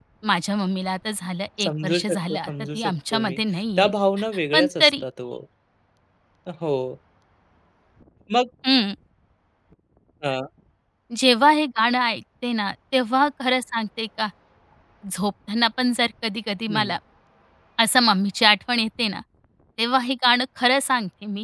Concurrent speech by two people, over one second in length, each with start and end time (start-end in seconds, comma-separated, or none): 1.6-3.4